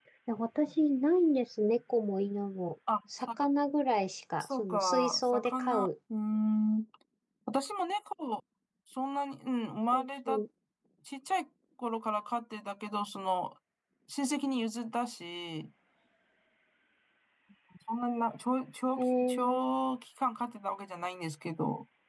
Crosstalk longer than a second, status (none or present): present